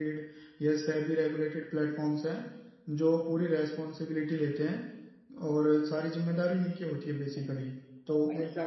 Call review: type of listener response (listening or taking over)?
taking over